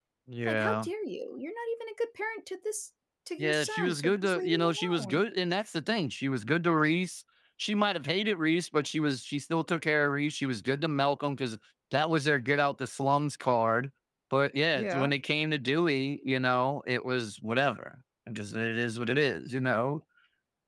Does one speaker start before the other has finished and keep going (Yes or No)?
Yes